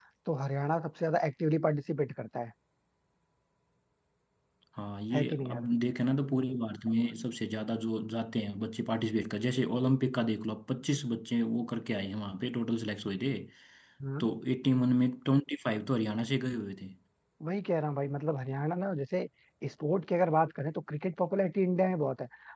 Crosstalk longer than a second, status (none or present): none